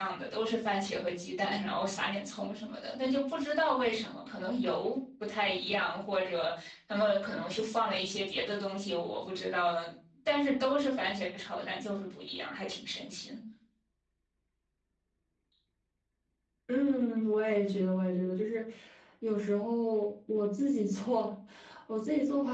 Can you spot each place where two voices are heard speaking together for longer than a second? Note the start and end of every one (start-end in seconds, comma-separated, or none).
none